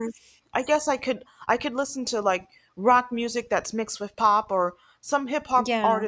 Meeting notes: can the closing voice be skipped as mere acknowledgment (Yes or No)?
Yes